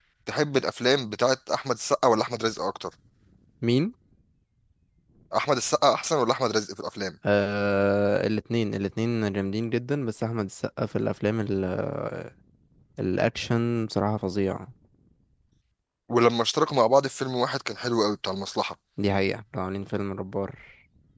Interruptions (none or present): none